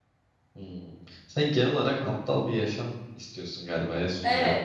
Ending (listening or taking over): taking over